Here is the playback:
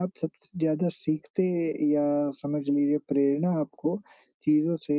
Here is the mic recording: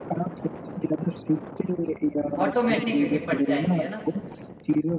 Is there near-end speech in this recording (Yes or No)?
Yes